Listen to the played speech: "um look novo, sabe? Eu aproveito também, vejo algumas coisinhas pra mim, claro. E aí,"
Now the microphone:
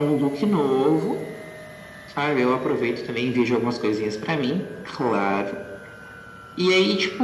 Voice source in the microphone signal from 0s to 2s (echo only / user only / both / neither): echo only